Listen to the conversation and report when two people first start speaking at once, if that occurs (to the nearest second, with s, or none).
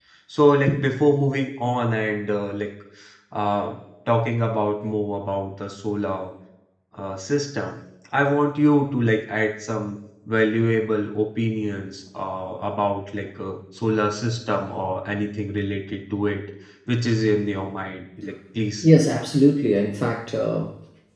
none